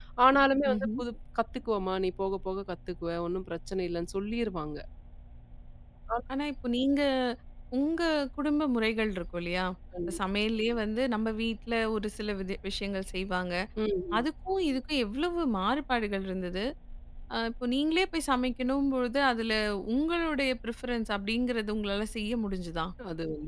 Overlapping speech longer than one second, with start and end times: none

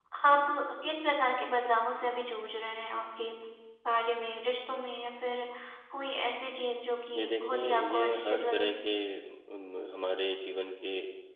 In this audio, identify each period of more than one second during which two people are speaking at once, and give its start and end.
7.2-8.7

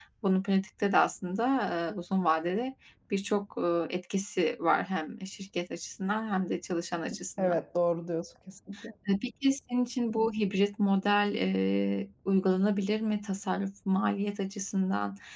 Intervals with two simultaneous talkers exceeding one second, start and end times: none

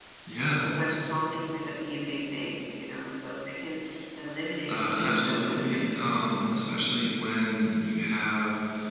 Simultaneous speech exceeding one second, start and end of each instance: 4.7-6.6

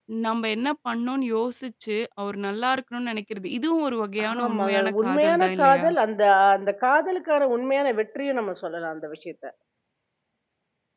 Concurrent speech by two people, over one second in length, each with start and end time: 4.4-5.8

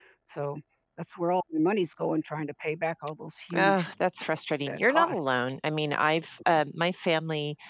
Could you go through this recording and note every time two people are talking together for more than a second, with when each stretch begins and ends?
none

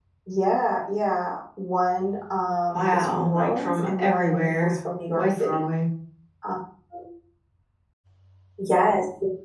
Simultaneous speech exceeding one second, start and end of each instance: 2.7-4.8

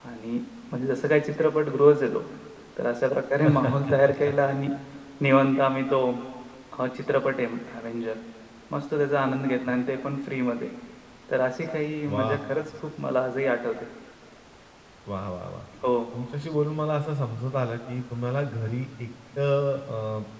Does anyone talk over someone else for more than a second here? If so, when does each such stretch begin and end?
none

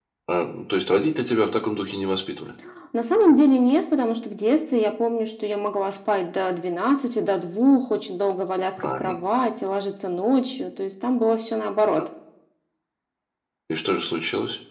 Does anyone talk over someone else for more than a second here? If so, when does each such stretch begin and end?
none

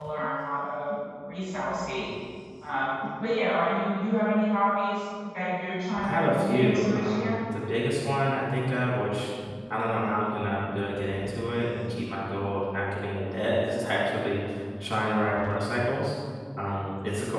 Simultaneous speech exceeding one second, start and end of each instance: 6.0-7.4

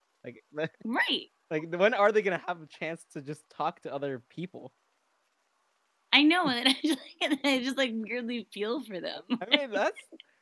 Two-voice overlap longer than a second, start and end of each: none

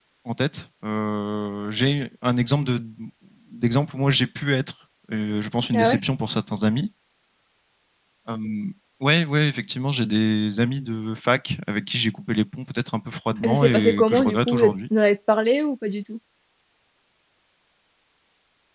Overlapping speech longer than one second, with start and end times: 13.4-14.7

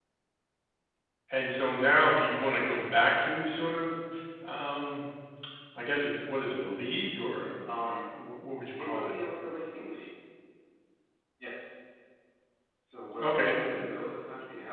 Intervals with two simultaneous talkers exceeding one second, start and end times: none

